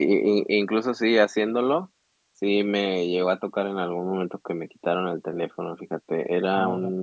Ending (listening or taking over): listening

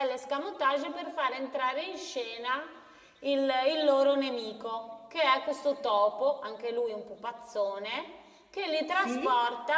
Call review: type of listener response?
listening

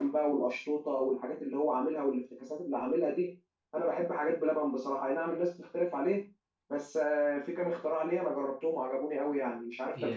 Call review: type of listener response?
taking over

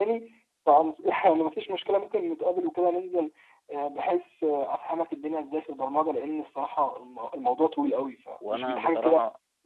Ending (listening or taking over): taking over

